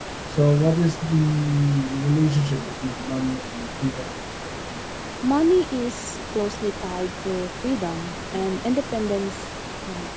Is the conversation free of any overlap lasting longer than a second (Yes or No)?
Yes